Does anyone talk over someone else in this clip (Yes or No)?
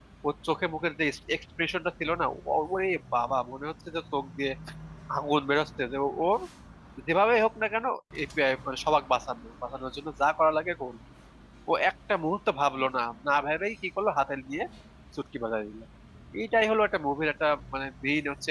No